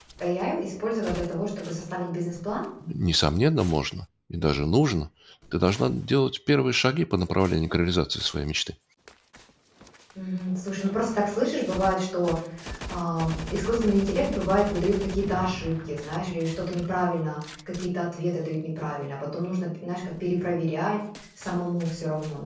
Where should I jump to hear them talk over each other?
none

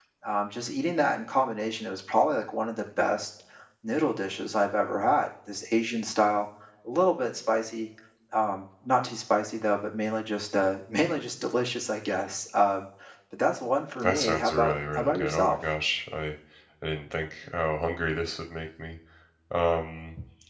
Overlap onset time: 14.0 s

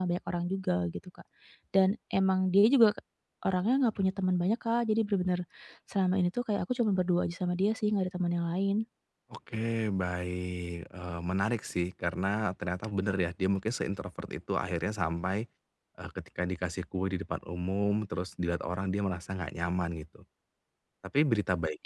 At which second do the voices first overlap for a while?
none

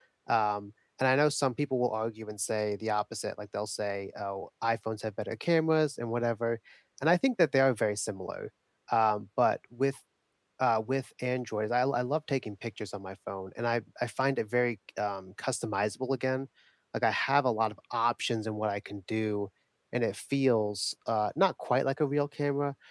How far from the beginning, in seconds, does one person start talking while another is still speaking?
none

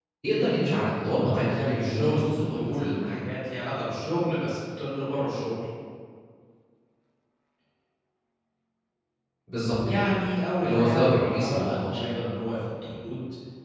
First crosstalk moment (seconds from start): 1.0 s

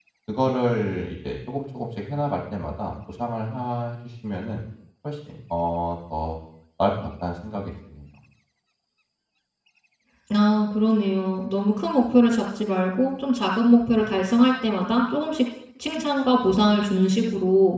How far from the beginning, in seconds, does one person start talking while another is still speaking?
none

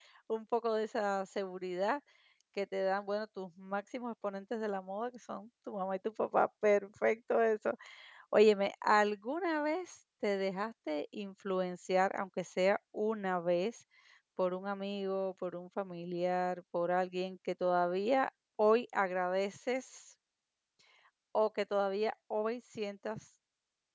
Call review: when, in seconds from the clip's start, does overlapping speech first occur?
none

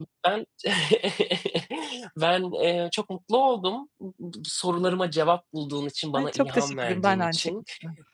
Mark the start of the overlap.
6.2 s

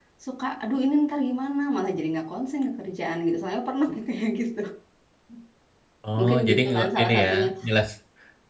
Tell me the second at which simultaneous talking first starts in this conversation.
6.2 s

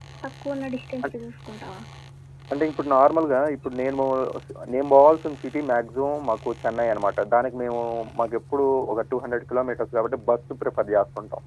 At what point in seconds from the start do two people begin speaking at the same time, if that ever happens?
none

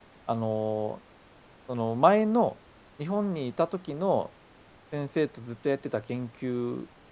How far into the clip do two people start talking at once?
none

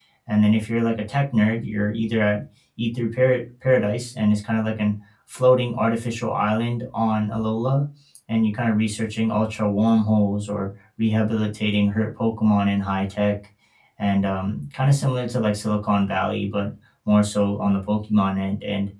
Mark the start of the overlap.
none

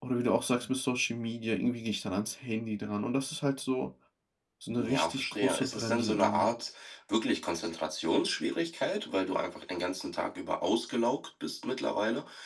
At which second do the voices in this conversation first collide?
4.8 s

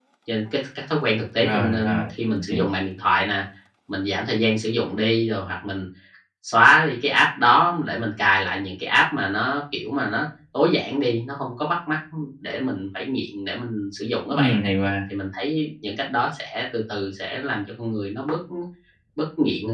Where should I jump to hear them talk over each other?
1.4 s

